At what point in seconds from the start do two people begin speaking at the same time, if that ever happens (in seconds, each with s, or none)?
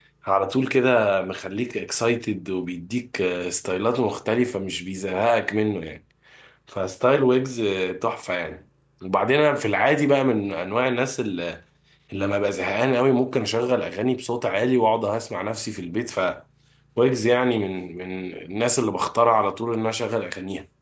none